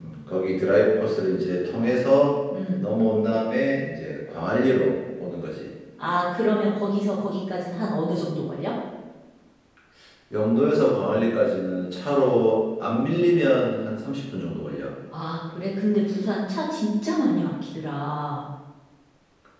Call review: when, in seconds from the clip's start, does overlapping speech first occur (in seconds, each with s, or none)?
none